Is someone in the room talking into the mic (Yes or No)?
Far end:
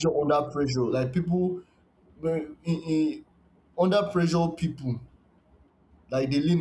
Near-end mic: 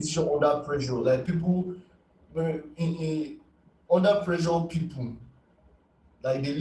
No